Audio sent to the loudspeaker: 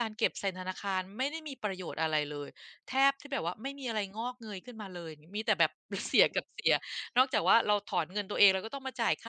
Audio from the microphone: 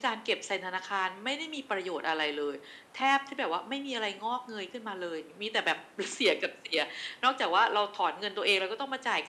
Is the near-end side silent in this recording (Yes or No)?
Yes